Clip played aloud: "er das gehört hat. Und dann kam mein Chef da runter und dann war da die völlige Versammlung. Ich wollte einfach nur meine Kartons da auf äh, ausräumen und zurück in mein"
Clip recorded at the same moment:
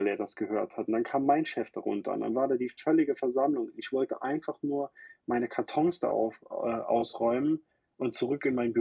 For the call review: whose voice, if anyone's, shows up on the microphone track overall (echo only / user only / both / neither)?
echo only